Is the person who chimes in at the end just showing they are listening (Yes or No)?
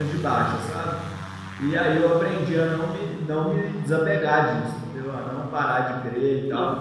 Yes